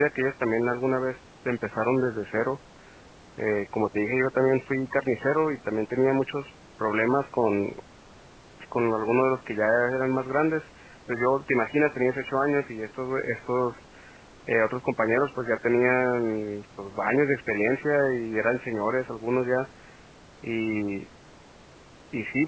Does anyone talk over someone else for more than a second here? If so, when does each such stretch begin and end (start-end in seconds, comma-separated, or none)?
none